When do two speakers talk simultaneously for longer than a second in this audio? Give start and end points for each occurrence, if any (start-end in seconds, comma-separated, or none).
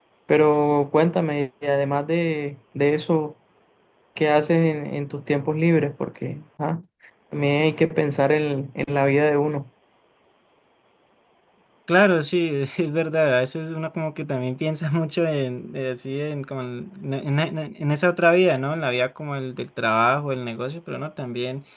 none